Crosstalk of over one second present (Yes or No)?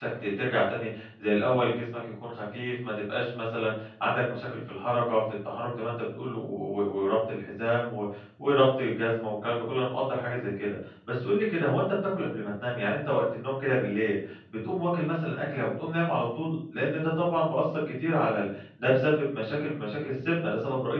No